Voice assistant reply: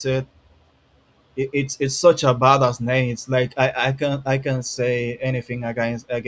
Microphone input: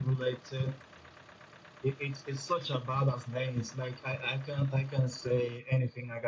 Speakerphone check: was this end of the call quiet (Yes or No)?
Yes